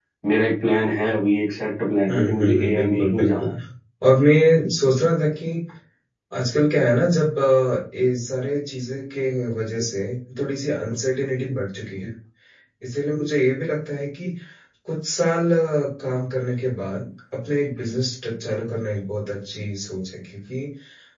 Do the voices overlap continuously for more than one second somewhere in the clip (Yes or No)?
Yes